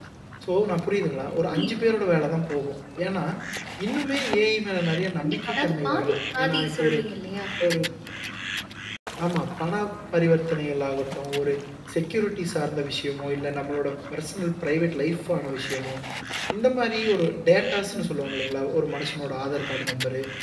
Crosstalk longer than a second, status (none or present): present